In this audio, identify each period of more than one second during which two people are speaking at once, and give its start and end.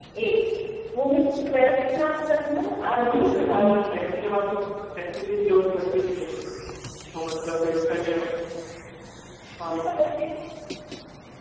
2.9-4.2

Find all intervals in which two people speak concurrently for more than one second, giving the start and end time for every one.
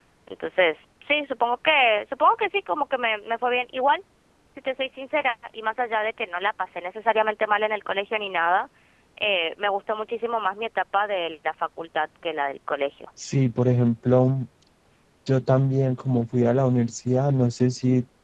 none

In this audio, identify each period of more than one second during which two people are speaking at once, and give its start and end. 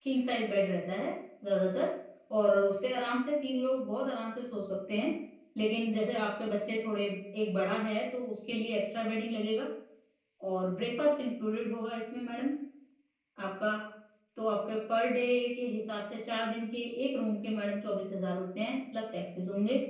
none

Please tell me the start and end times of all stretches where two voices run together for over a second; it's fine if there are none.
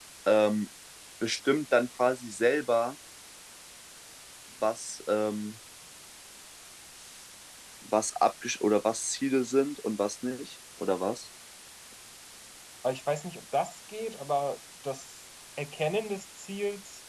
none

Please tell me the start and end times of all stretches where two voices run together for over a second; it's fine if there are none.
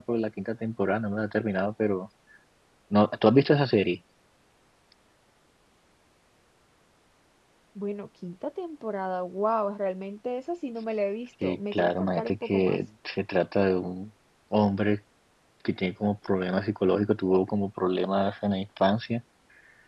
11.4-12.8

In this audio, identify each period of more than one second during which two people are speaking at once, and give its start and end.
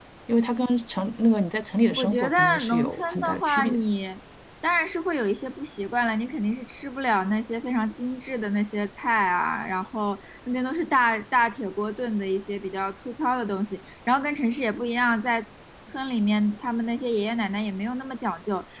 2.0-3.8

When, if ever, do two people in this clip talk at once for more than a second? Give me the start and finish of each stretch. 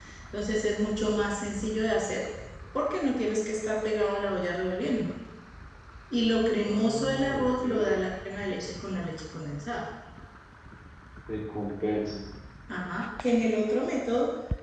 6.6-7.9

